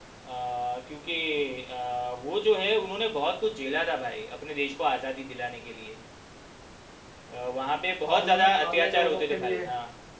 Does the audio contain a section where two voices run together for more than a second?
Yes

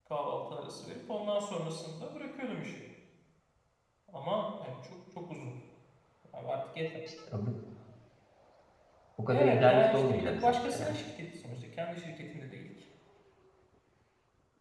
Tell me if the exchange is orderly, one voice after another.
No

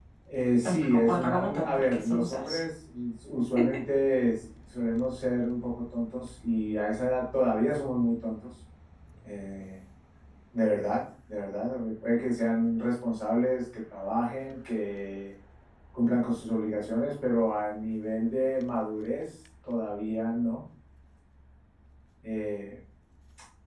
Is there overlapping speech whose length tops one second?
Yes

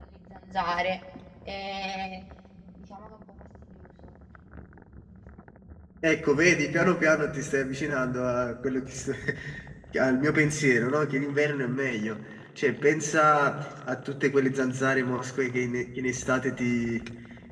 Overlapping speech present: No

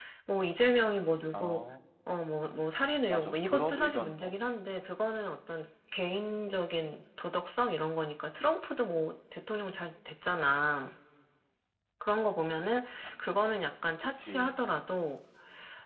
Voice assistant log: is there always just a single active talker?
No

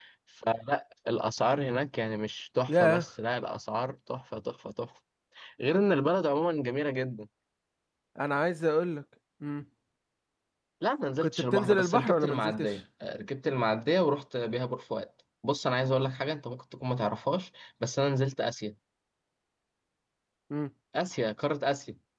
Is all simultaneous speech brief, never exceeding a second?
No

